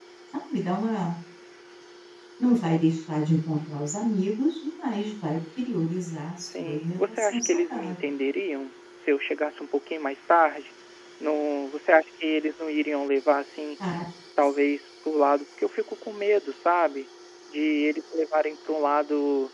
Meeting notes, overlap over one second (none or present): present